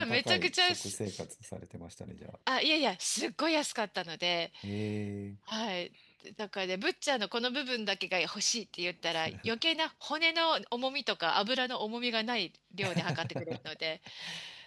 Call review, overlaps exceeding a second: present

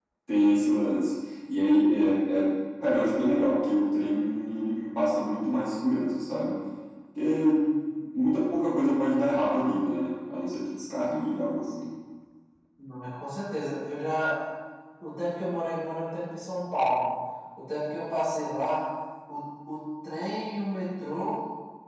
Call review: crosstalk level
none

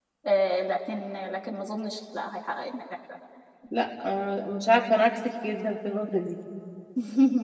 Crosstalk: none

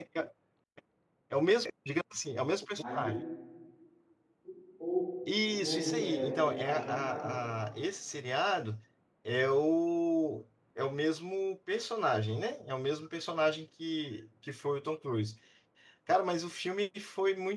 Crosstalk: present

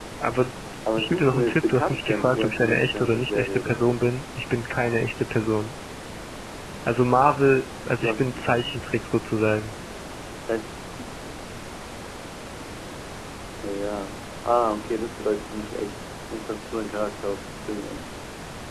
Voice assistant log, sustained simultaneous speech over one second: present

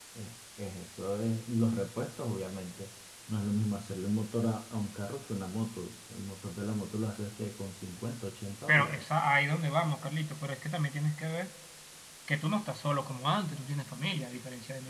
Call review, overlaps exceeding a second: none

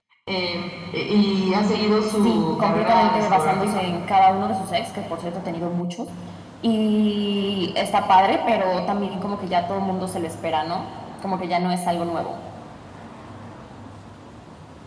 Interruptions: present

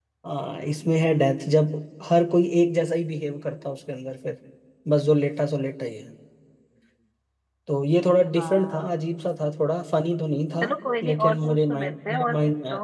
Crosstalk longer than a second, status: present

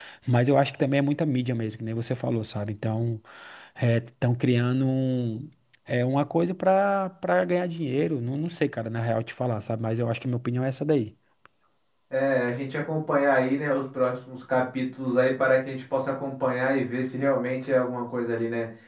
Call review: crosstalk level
none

